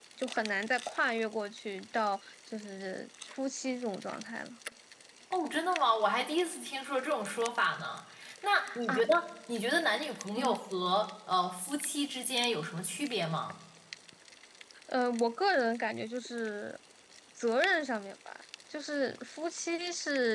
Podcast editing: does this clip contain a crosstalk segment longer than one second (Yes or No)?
No